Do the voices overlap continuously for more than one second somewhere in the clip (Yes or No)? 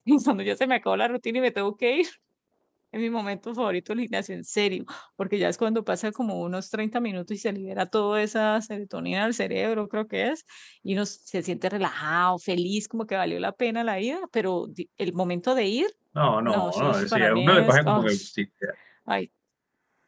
Yes